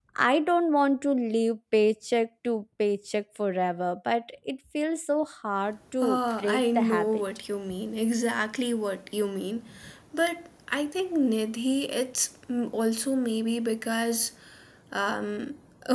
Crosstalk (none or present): present